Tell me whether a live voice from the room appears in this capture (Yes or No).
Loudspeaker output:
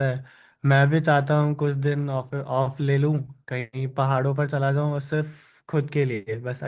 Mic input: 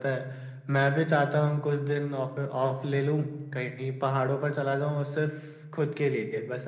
No